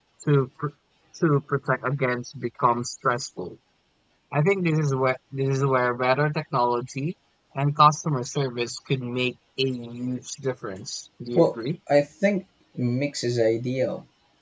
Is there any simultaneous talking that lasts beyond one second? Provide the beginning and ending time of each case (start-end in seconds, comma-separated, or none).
none